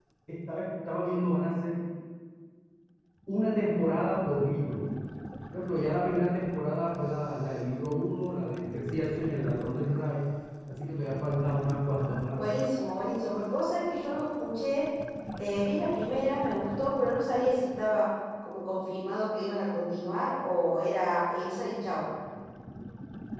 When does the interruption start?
none

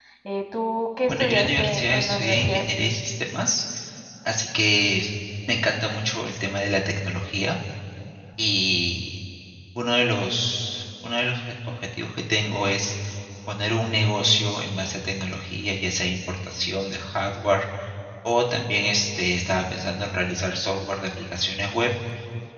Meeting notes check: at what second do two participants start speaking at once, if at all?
1.1 s

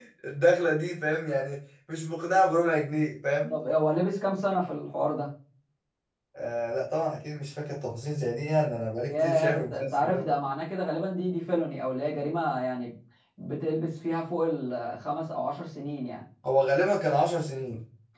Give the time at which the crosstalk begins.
9.0 s

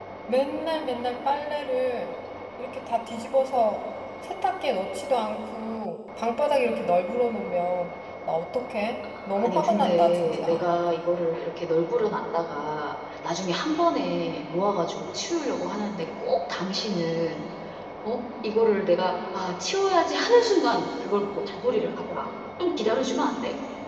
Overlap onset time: 9.4 s

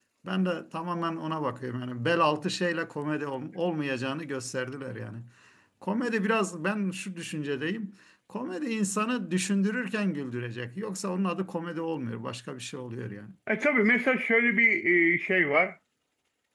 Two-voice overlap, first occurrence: none

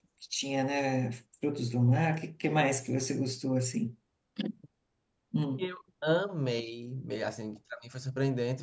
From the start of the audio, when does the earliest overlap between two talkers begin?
none

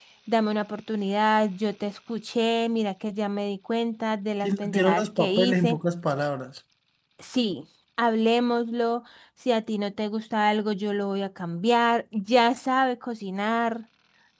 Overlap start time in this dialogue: 4.4 s

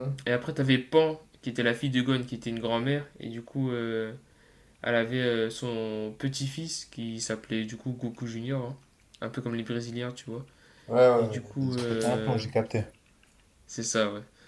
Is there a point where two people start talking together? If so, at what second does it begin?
11.2 s

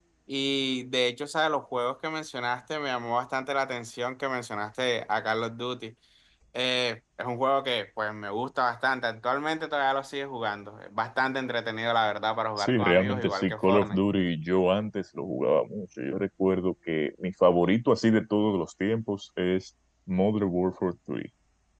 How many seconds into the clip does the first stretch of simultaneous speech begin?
12.6 s

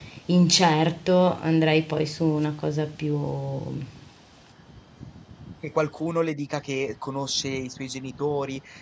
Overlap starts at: none

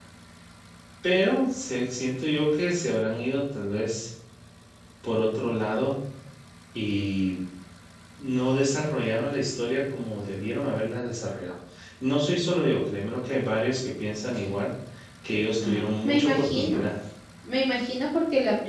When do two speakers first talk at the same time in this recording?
15.6 s

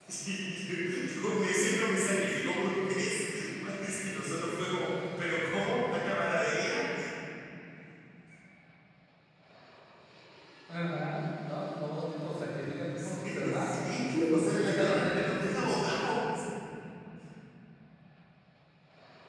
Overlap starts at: 13.0 s

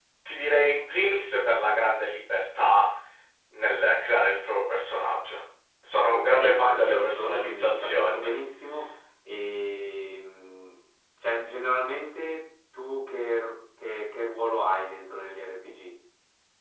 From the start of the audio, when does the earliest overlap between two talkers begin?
6.1 s

